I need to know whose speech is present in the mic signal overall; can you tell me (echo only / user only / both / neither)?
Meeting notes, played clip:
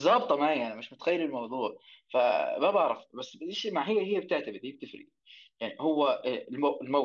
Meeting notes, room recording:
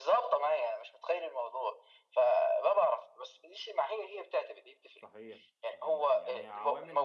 both